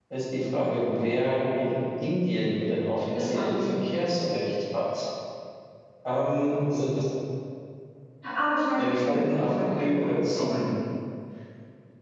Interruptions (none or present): present